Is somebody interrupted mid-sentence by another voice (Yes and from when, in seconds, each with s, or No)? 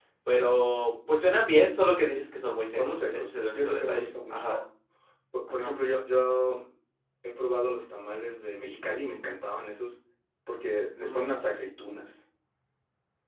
Yes, from 2.8 s